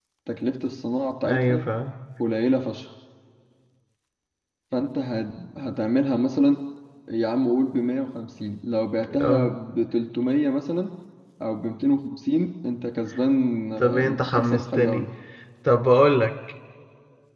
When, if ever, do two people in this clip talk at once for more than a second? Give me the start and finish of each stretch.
13.8-15.1

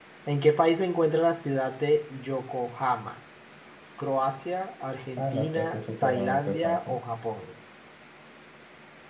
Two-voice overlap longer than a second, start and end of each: 5.2-7.0

